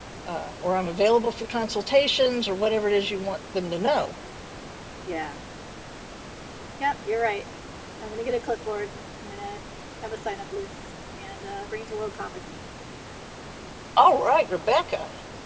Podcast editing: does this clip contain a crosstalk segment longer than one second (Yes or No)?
No